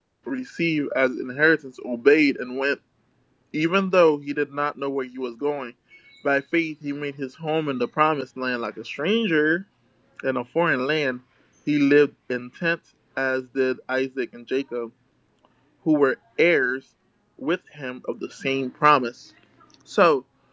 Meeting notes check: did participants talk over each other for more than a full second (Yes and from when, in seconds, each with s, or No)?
No